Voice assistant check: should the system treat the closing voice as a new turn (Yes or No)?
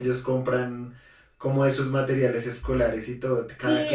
Yes